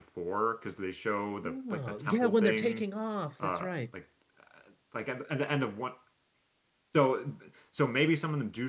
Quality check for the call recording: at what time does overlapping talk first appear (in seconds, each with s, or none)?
1.4 s